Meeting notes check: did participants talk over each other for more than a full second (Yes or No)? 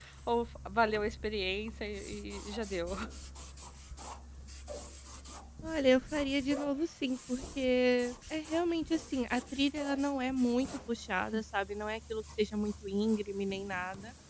No